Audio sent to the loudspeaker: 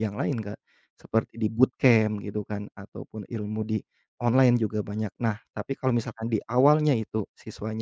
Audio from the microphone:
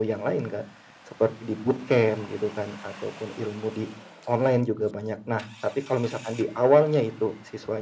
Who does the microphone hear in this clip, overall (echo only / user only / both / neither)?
echo only